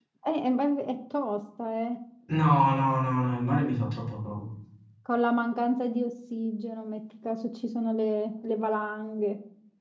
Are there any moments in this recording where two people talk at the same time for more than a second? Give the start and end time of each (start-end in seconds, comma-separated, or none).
none